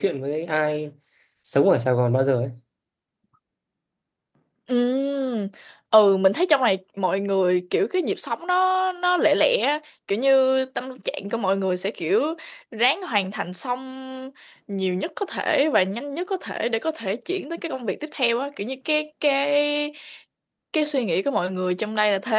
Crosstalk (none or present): none